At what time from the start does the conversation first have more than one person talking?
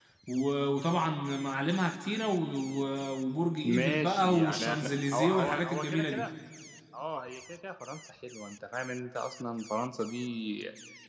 3.6 s

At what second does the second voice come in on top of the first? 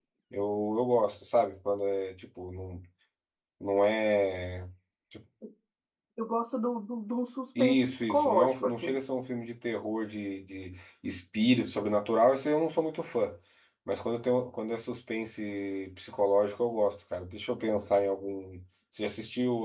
7.6 s

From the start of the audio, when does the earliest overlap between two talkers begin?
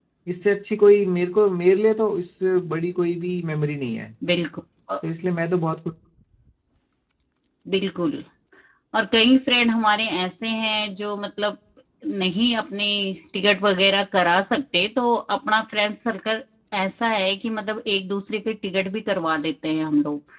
none

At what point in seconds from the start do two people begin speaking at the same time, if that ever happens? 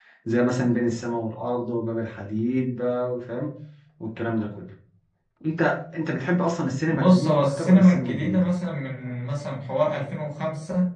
6.9 s

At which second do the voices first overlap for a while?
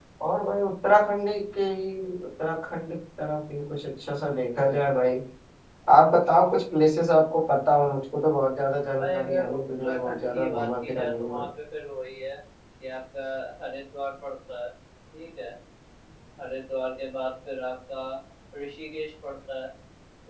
9.0 s

